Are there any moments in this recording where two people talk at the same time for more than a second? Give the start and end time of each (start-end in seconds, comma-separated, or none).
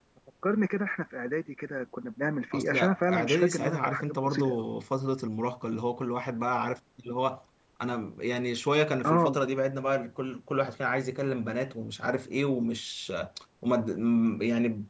2.5-4.7